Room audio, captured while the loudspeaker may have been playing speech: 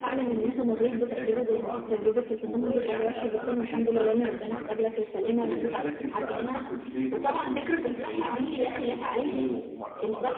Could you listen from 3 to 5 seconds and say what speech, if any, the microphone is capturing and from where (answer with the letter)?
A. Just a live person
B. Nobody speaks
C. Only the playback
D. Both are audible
C